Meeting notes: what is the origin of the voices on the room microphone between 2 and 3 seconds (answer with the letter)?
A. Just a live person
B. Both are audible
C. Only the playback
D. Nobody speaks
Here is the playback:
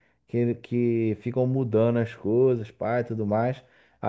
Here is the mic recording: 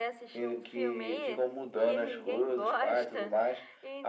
B